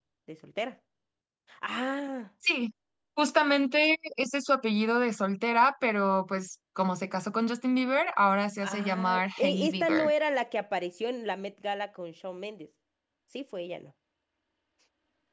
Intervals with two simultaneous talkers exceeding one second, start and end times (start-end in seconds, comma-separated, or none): 8.6-10.1